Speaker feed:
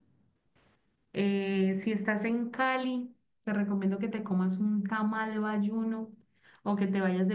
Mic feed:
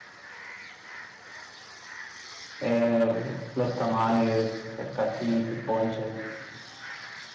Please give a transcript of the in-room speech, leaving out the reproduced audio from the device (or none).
eh, los tamales, el caquic, el ponche.